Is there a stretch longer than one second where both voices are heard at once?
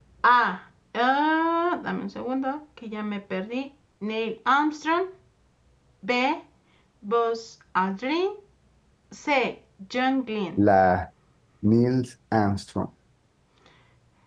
No

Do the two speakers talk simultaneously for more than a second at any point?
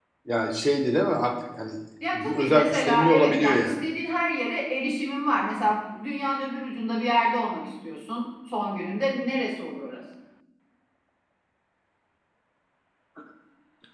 Yes, from 2.1 s

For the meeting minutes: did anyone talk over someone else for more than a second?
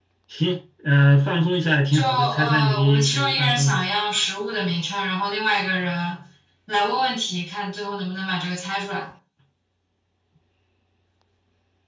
Yes, from 1.9 s

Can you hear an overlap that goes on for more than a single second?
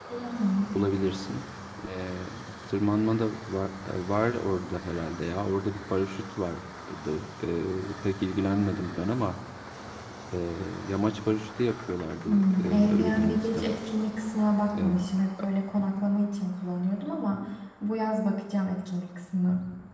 Yes, from 12.2 s

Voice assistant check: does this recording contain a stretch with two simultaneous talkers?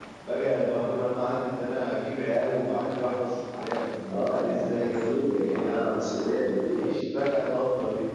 Yes, from 4.4 s

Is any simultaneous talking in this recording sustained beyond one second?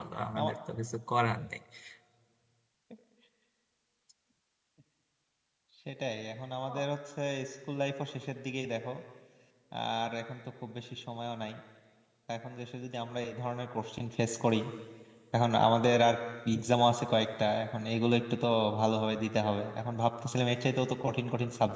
No

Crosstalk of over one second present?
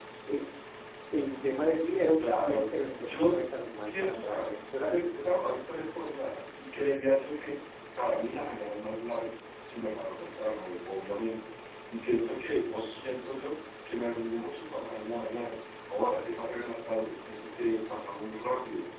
Yes, from 2.2 s

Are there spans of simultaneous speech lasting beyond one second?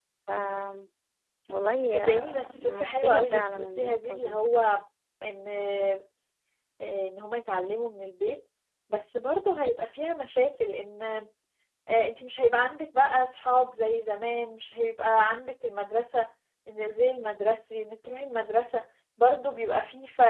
Yes, from 1.9 s

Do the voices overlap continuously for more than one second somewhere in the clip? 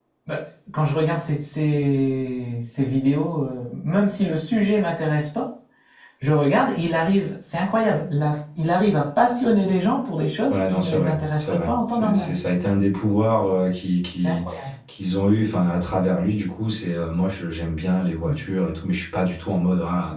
Yes, from 10.5 s

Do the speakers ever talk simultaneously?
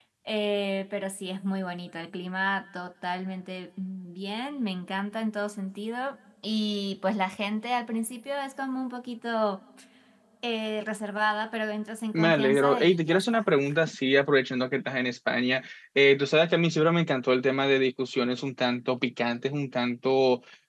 Yes, from 12.1 s

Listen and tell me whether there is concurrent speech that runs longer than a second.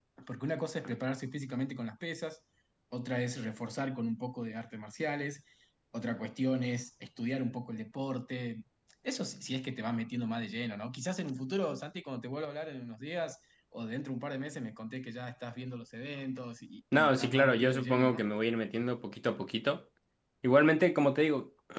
Yes, from 16.9 s

